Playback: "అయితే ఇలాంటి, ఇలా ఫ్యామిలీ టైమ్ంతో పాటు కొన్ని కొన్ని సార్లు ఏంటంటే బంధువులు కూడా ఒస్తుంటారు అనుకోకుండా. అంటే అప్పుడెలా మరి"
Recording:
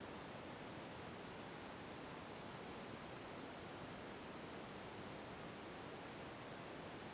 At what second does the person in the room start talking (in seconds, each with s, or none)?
none